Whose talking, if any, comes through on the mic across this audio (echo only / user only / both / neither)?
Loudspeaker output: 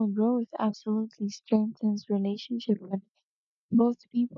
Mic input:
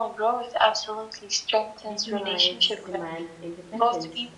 both